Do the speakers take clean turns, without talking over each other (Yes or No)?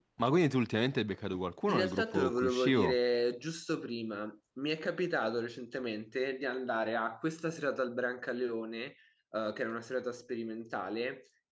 No